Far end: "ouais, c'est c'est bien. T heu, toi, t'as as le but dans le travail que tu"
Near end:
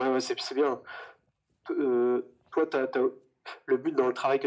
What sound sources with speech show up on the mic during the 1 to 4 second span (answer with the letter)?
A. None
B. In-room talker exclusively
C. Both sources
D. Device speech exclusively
D